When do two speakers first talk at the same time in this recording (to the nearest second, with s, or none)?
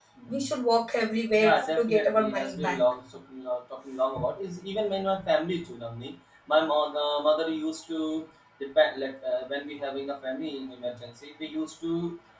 1 s